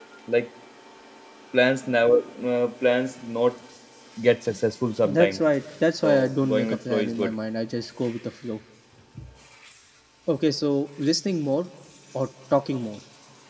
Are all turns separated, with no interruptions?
No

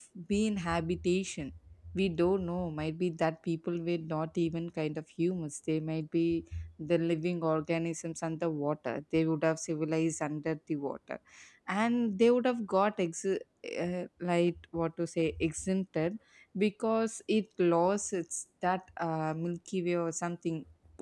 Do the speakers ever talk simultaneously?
No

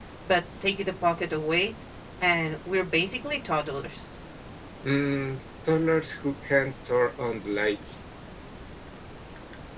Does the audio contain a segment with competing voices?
No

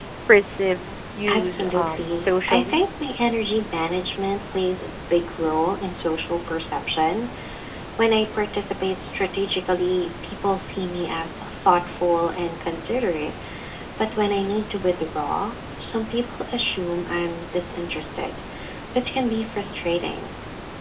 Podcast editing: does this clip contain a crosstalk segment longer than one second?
Yes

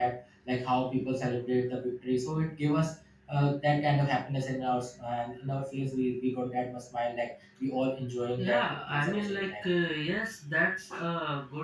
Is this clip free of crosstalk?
No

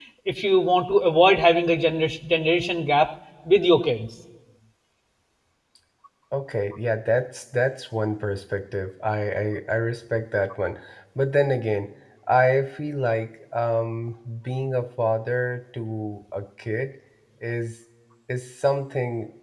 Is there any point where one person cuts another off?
No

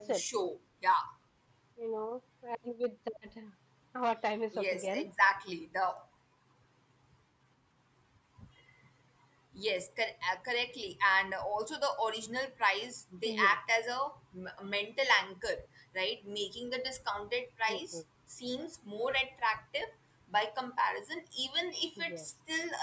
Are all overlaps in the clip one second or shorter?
Yes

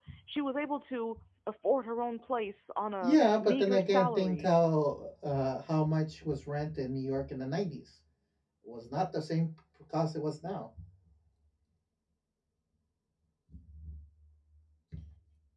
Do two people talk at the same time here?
Yes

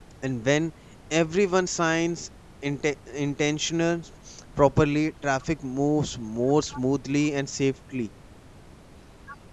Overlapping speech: No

